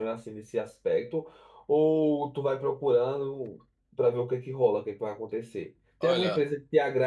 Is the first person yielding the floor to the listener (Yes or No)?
No